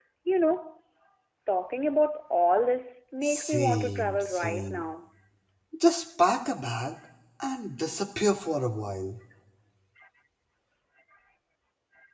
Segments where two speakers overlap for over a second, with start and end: 3.2-4.8

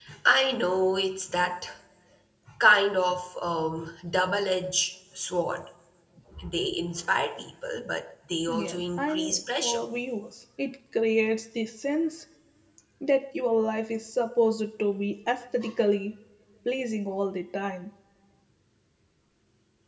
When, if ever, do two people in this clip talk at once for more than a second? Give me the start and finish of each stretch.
8.5-9.8

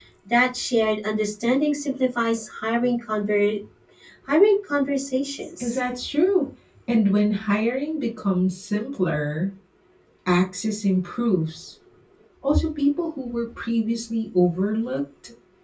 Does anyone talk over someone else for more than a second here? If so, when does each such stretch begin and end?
none

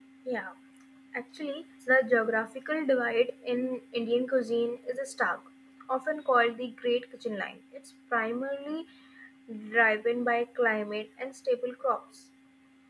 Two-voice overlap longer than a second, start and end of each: none

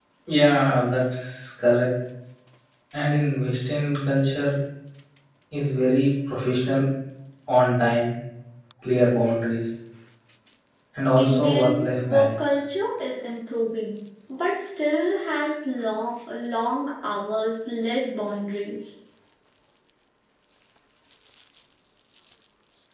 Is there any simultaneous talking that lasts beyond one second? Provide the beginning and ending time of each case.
11.2-12.6

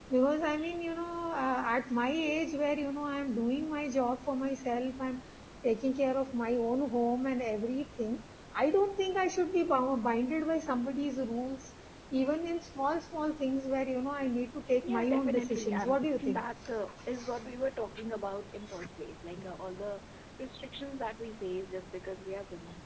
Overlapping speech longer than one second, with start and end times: 14.8-16.4

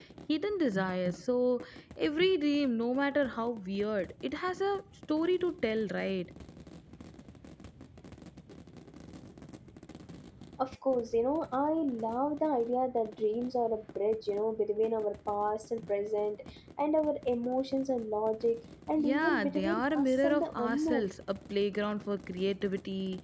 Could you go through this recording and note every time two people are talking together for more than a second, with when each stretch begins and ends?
19.0-21.1

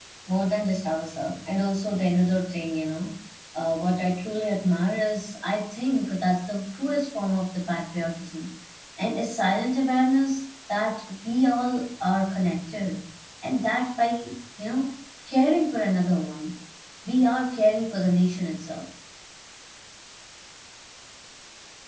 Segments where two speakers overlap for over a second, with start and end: none

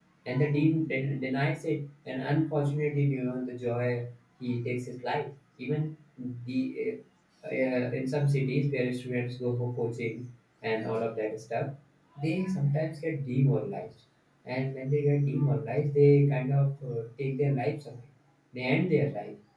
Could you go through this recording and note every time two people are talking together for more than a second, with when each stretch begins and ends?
none

